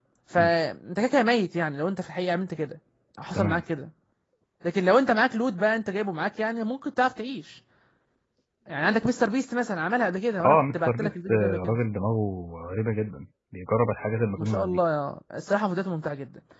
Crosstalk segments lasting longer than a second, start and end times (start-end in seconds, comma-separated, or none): 10.4-11.8